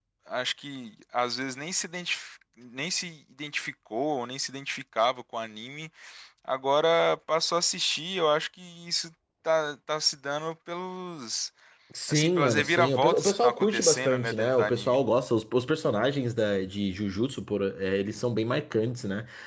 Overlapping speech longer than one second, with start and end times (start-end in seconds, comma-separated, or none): 12.1-15.0